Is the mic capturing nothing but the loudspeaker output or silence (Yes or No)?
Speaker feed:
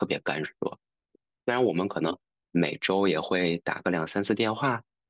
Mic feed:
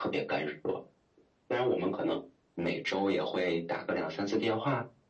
Yes